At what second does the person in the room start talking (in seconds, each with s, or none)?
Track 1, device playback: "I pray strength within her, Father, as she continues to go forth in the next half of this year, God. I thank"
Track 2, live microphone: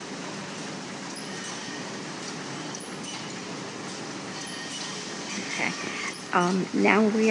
5.5 s